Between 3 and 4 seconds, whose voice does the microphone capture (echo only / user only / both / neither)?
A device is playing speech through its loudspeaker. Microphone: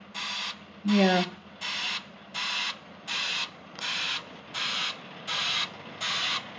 neither